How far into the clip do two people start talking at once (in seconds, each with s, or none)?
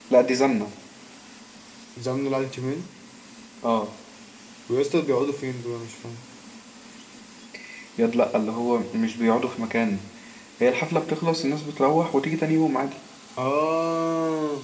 none